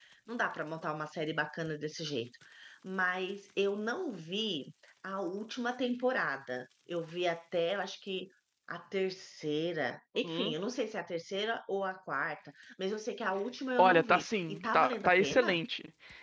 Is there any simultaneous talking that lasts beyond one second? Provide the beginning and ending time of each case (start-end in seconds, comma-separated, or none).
13.8-15.6